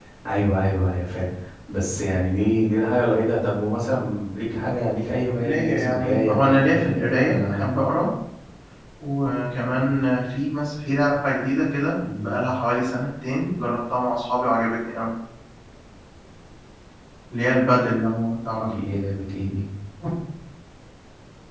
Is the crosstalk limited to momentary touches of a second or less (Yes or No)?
No